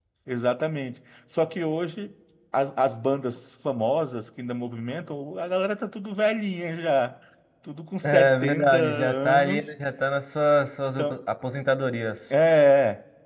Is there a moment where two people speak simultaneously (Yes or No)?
Yes